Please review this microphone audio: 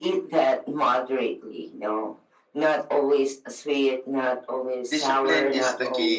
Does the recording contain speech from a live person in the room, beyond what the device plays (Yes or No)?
Yes